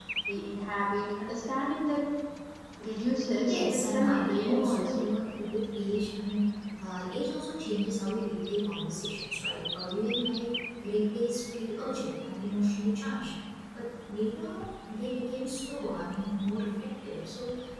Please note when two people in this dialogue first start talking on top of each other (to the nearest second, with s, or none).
3 s